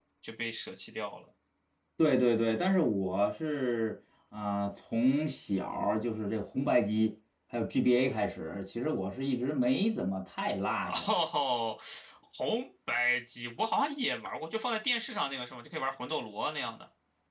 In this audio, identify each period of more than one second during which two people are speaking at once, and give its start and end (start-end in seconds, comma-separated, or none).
none